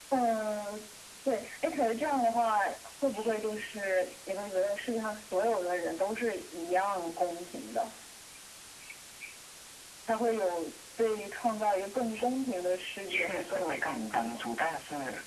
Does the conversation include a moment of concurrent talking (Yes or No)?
Yes